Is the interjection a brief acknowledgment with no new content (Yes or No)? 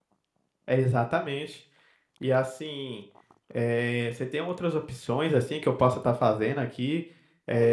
No